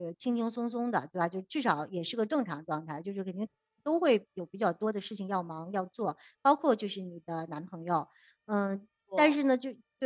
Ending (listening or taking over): listening